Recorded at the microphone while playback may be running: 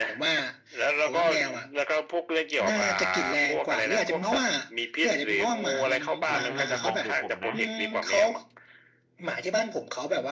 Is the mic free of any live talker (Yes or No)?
No